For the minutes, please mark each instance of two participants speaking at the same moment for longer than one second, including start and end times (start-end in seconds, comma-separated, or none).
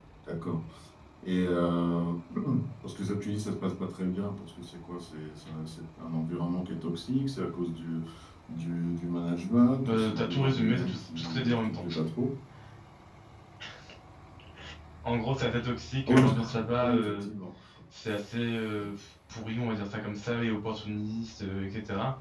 9.8-11.8